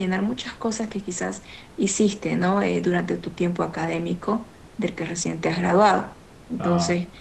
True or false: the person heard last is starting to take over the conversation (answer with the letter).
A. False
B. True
A